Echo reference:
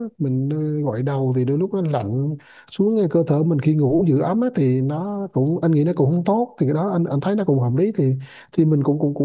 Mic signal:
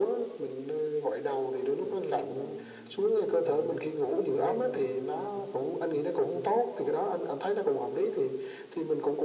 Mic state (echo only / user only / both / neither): both